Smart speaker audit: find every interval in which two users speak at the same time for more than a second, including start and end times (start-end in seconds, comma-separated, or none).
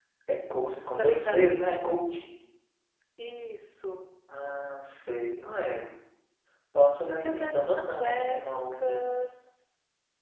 7.2-9.0